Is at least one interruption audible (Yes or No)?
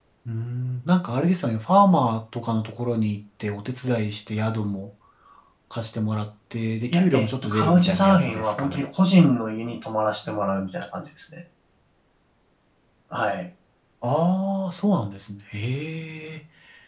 Yes